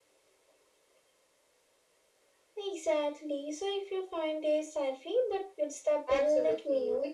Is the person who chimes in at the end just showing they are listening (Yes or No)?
No